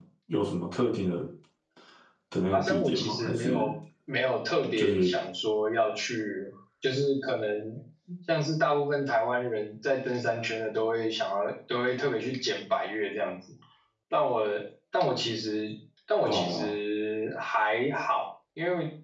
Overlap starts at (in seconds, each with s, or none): 2.5 s